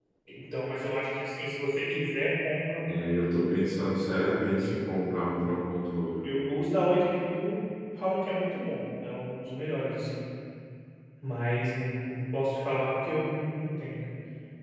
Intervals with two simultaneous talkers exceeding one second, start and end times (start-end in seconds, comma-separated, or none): none